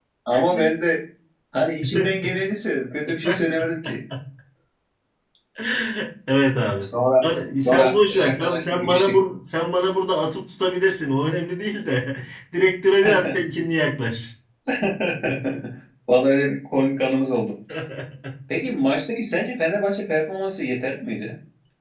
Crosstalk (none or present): present